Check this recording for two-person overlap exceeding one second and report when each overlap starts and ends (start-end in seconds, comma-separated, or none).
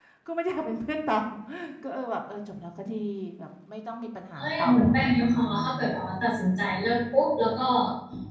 4.4-5.8